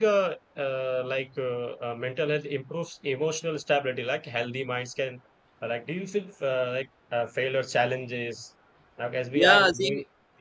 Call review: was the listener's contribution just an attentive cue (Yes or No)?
No